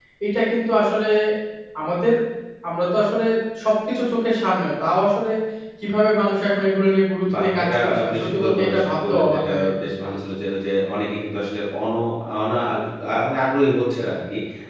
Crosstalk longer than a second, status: present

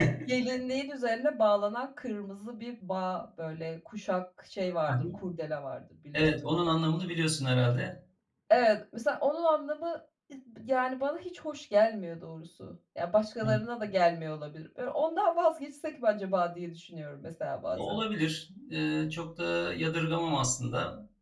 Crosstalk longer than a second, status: none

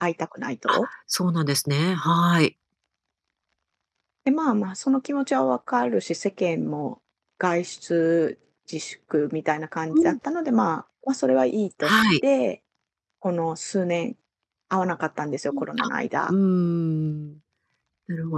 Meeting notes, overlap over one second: none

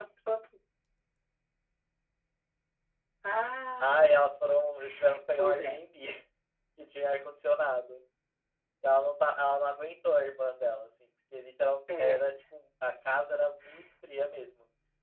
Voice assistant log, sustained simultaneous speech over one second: none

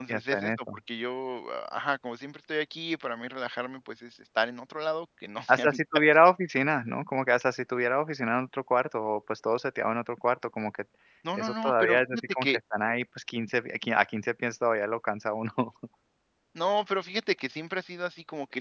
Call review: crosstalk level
present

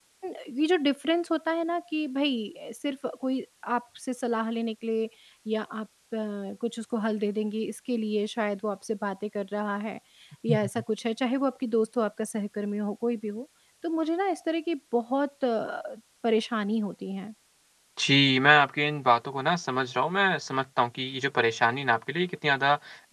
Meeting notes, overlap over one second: none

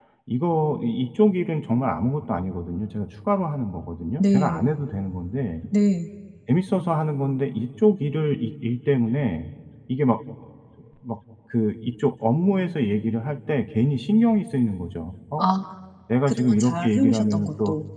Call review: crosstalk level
present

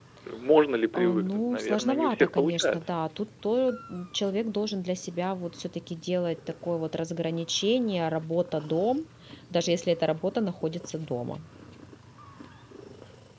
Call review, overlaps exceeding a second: present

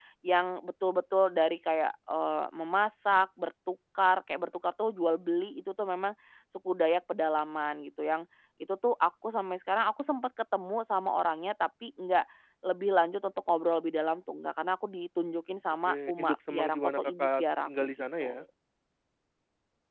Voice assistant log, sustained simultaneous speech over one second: present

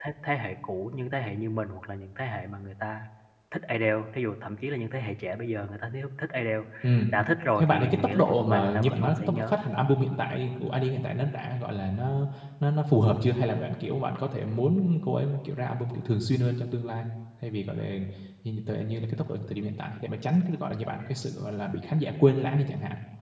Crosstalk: present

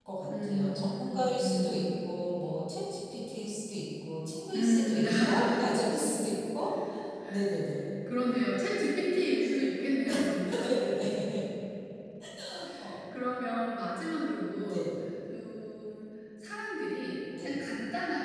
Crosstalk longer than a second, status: present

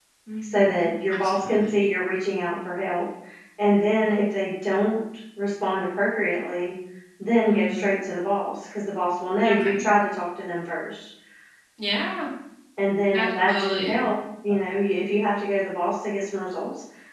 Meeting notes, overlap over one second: present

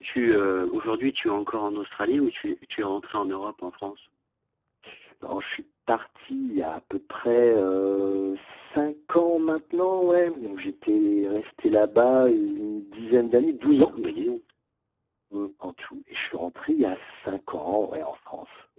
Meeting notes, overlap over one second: none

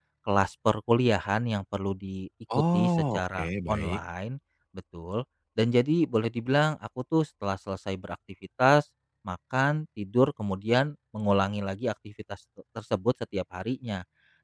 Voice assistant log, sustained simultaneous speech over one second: present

